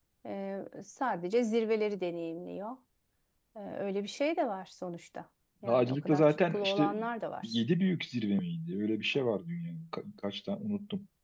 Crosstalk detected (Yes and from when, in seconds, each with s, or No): Yes, from 5.6 s